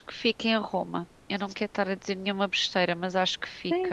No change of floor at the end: No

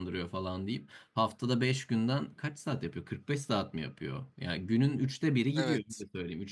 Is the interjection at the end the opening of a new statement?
No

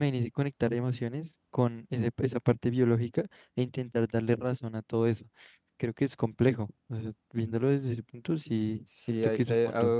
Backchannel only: No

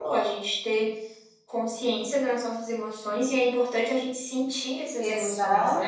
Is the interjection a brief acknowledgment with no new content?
No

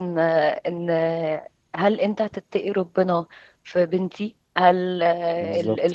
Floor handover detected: No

